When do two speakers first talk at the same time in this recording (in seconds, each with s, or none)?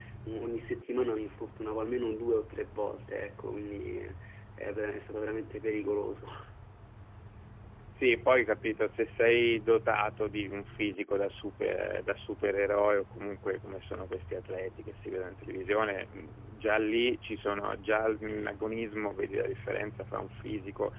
none